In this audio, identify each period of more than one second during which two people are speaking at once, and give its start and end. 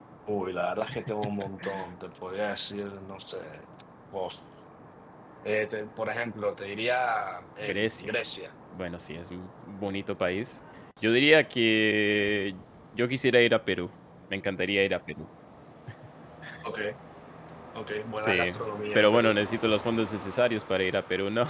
none

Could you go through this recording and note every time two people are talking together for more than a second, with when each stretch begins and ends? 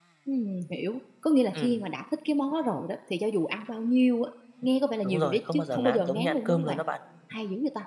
5.0-6.8

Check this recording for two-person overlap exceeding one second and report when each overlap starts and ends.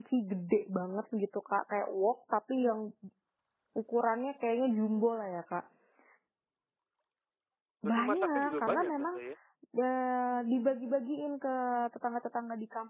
7.8-9.2

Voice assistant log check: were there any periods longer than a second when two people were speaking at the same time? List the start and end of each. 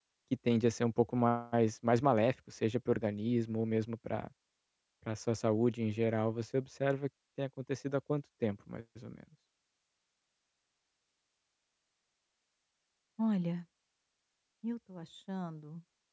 none

